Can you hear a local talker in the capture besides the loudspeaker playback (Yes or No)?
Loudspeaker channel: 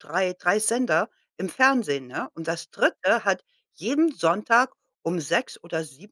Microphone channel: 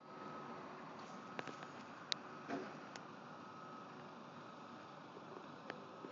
No